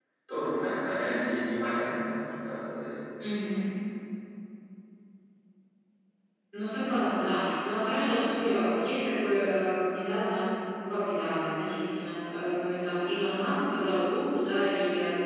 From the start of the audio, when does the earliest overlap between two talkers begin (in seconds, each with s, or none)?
none